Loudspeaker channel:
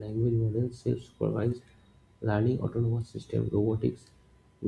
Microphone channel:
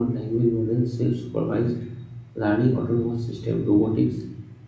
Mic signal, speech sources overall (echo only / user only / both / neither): echo only